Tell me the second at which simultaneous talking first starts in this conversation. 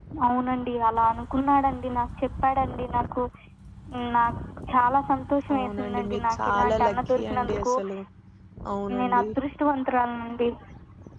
6 s

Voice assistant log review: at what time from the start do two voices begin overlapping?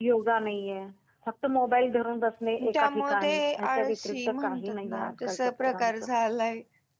3 s

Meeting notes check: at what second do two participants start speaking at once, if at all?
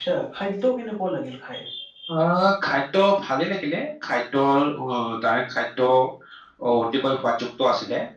none

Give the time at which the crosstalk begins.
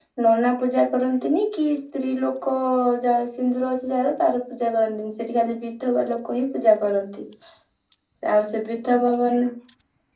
none

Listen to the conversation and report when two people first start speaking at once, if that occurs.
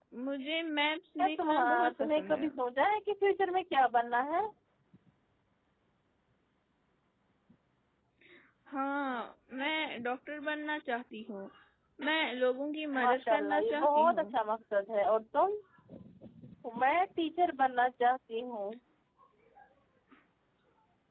1 s

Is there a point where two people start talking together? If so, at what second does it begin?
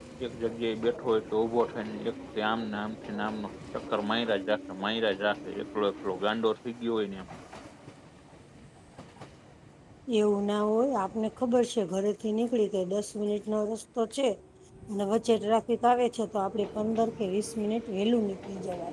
none

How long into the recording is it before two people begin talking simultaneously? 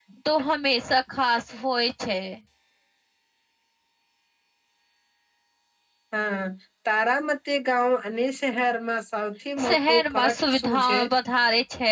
10 s

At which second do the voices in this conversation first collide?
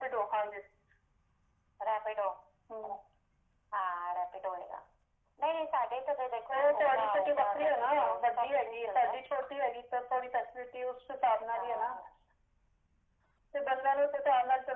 7 s

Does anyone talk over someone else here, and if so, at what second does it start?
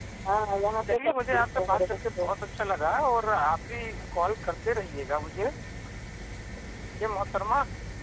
1 s

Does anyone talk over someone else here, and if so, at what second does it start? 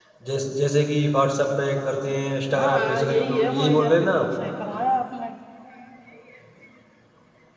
3 s

